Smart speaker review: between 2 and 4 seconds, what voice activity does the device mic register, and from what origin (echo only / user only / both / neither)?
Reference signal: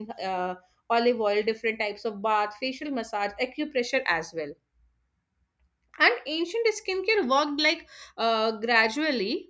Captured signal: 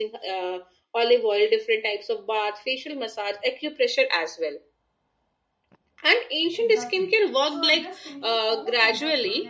echo only